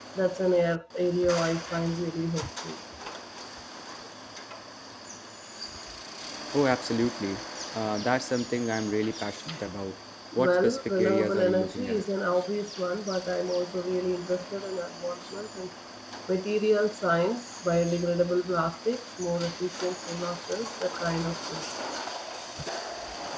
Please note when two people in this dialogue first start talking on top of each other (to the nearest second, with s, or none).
10 s